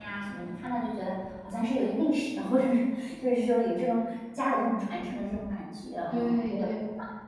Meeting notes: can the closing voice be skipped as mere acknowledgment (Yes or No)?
No